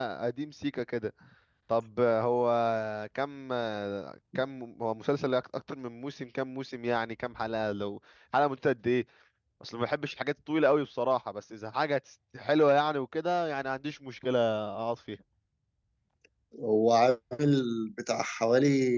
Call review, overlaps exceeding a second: none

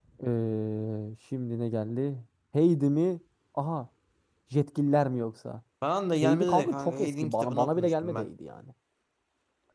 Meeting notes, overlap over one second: present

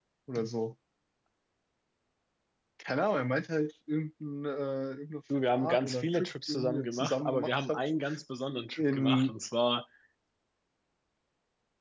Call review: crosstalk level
present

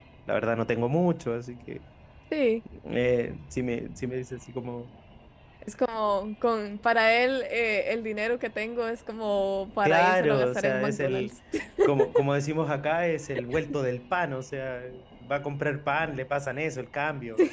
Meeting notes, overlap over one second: present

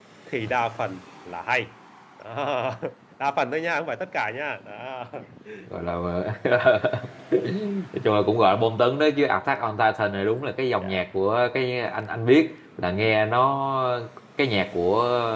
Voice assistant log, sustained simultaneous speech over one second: none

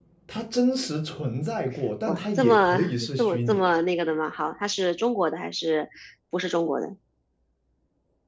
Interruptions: present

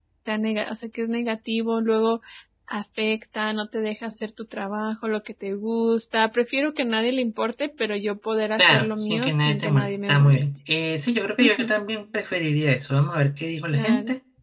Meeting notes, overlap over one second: present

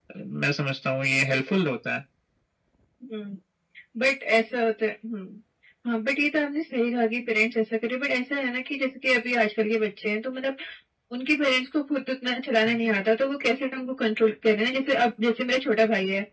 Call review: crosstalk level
none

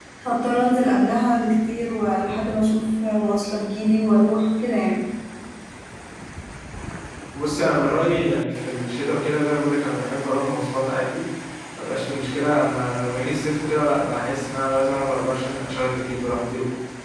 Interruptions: none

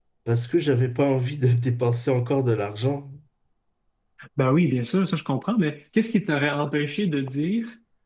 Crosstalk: none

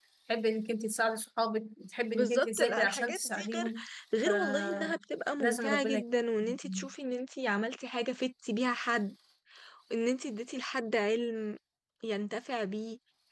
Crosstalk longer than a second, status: present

